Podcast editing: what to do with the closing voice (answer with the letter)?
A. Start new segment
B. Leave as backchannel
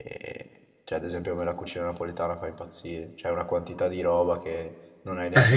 A